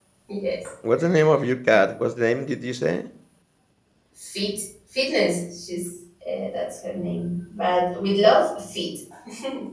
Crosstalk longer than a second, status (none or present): none